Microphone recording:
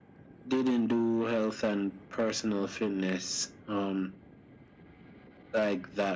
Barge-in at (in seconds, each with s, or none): none